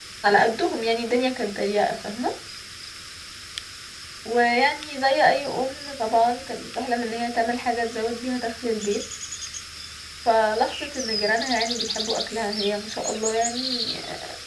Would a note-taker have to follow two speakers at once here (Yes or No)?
No